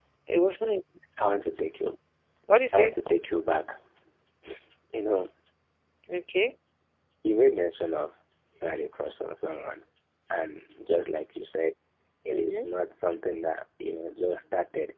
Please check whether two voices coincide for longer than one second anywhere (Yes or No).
No